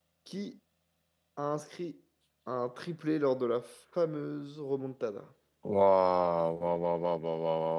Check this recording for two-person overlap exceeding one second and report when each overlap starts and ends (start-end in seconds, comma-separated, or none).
none